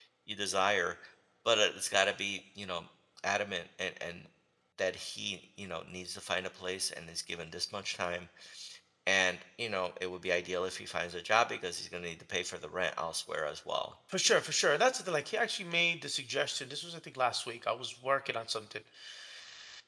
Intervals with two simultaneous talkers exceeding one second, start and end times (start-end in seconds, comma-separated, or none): none